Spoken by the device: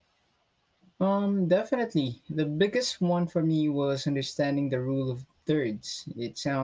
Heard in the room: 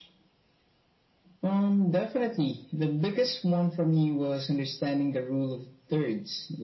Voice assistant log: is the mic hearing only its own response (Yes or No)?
Yes